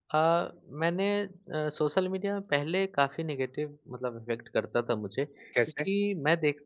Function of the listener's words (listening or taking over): listening